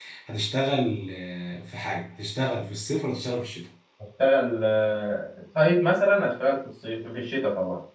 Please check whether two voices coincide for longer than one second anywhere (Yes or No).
No